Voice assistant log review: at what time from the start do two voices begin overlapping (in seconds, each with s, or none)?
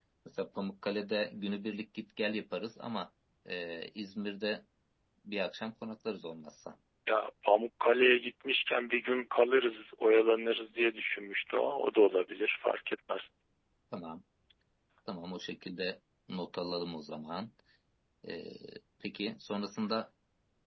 none